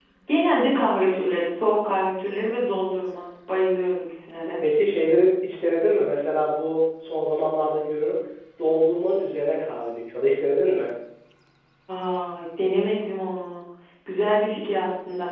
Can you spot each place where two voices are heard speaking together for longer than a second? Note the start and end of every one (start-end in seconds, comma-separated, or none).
none